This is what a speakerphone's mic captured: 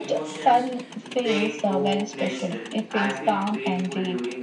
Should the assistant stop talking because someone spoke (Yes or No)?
Yes